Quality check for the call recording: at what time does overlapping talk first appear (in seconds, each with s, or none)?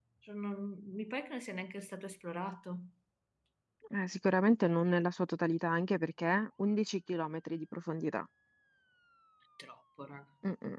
none